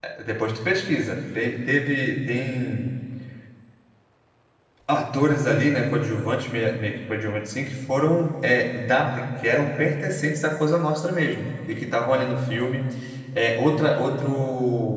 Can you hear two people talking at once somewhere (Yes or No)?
No